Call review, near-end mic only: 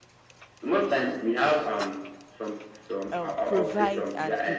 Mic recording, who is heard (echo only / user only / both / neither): both